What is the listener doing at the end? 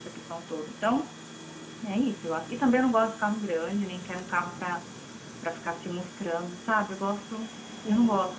listening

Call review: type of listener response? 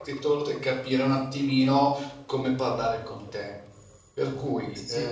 listening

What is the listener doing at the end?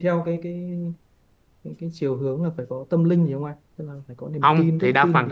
taking over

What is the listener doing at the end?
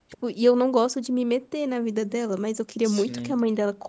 listening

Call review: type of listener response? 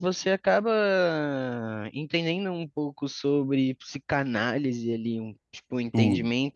listening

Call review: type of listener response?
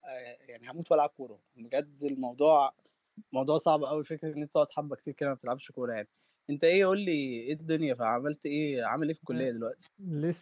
taking over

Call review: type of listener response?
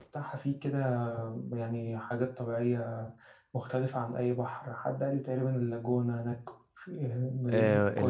taking over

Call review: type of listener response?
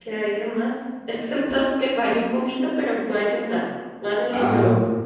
taking over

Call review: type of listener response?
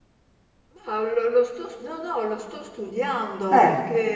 listening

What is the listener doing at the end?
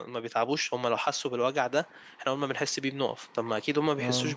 listening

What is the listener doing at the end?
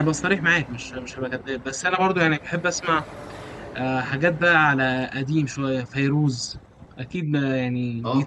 taking over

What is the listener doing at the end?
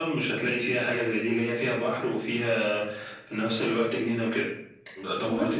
taking over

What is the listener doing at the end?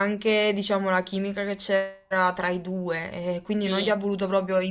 listening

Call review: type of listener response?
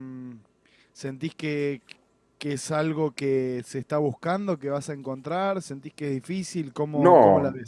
taking over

